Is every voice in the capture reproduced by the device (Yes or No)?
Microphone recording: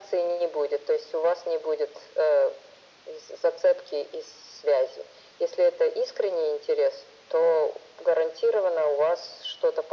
Yes